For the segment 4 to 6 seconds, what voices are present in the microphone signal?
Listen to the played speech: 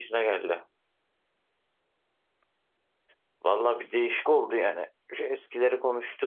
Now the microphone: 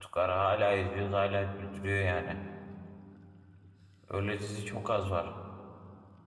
user only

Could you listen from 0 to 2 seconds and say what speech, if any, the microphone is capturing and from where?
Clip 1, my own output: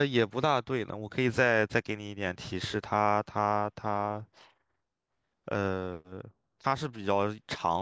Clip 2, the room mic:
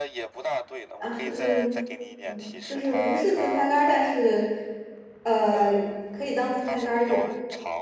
both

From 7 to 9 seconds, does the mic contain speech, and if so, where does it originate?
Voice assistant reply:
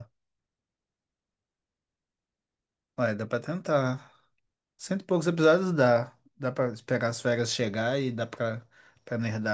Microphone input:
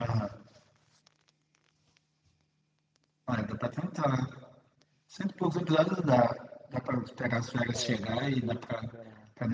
both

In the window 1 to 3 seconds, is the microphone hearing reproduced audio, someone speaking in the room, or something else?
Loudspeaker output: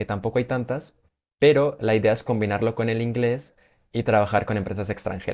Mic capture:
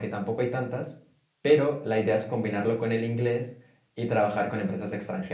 echo only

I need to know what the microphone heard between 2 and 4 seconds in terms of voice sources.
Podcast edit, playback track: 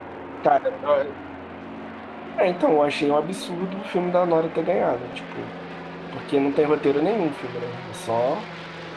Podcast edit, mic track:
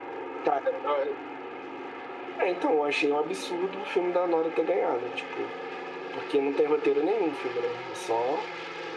echo only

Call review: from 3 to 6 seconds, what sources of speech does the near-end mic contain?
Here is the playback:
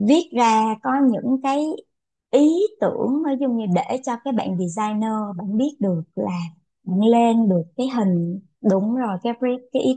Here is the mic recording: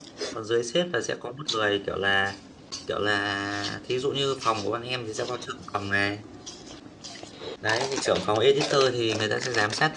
user only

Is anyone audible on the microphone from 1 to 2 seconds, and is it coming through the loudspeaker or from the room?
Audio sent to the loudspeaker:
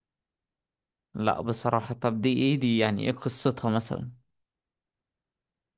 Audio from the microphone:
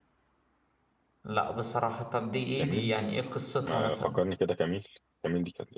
echo only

